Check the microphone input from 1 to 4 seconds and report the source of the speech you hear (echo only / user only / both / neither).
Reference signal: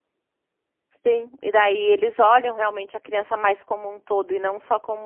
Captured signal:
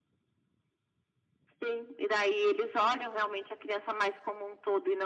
echo only